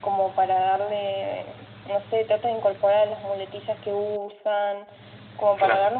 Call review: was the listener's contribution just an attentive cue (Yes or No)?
Yes